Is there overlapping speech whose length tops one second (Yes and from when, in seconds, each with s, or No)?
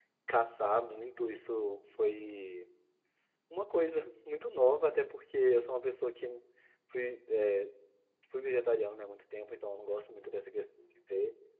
No